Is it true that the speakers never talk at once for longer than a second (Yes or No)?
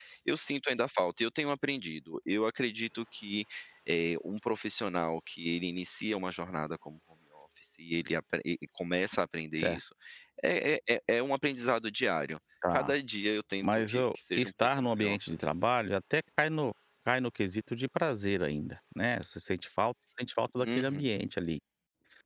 No